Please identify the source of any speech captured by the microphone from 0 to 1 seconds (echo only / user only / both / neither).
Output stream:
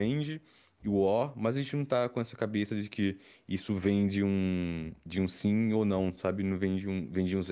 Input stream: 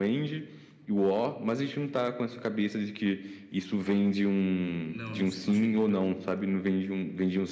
echo only